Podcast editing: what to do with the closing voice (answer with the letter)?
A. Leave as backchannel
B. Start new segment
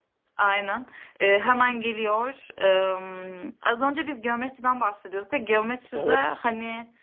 A